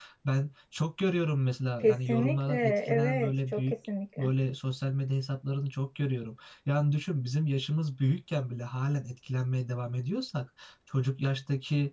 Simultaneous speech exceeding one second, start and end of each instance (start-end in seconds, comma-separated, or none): 1.8-3.7